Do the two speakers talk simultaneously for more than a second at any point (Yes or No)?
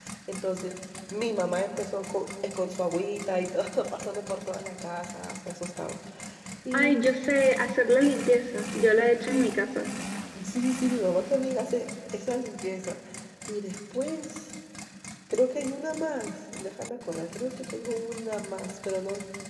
No